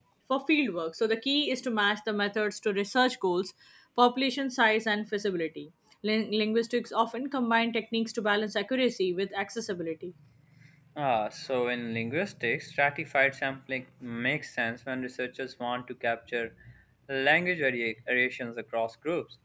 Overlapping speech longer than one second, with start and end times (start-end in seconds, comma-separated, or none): none